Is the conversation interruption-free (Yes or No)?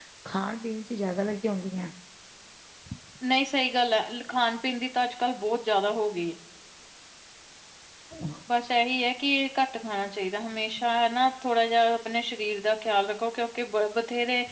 Yes